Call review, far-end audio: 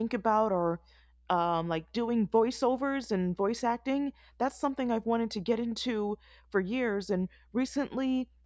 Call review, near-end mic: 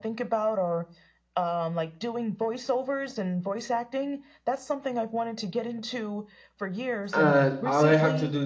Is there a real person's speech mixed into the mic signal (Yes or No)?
Yes